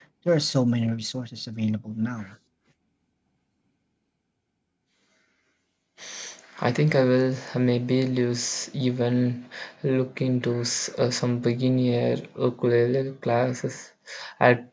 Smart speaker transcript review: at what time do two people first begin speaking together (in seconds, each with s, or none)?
none